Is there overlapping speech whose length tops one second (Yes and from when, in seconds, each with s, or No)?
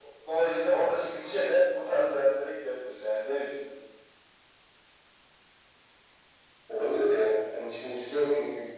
No